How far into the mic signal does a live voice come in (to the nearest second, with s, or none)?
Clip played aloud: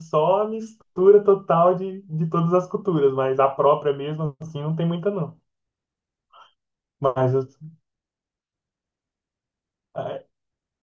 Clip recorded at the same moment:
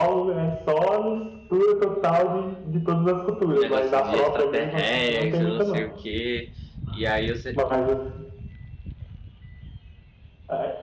3 s